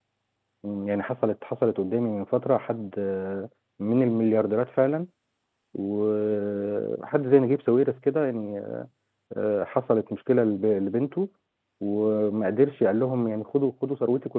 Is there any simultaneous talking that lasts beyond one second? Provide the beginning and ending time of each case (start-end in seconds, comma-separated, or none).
none